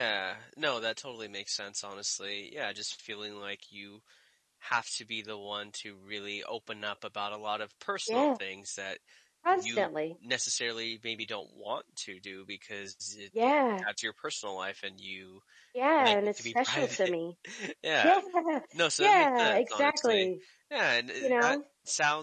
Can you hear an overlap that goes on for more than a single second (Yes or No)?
Yes